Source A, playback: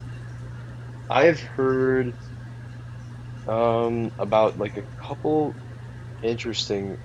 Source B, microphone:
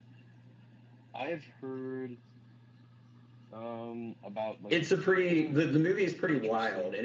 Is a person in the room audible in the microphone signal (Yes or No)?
Yes